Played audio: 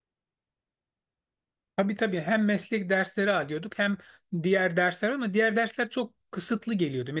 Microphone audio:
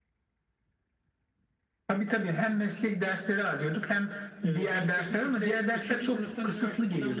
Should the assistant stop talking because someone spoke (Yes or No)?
Yes